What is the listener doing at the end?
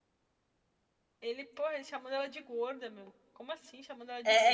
taking over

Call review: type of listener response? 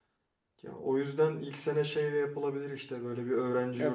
taking over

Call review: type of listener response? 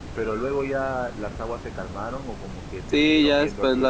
taking over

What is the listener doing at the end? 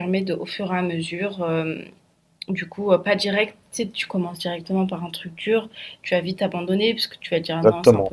taking over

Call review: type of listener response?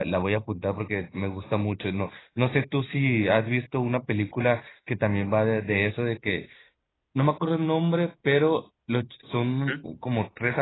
listening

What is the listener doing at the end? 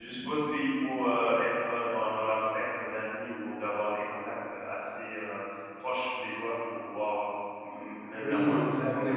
taking over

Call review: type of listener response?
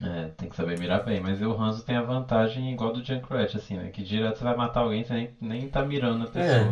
taking over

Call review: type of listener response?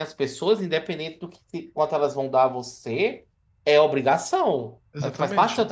listening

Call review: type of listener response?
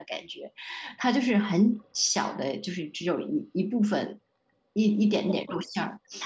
taking over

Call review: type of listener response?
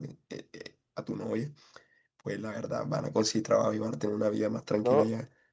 taking over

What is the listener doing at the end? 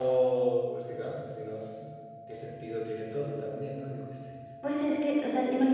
taking over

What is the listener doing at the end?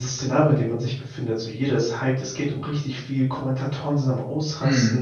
listening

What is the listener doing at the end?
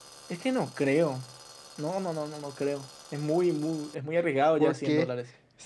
taking over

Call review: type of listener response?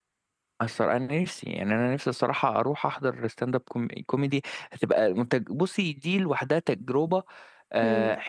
listening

